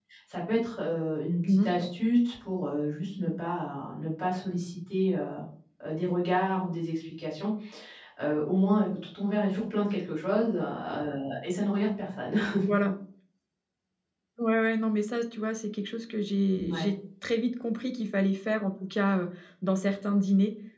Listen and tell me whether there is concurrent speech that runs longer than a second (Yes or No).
No